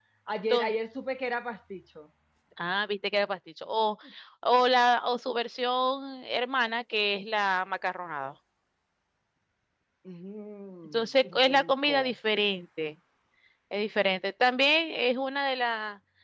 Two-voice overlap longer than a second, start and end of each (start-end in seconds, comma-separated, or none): 10.9-12.1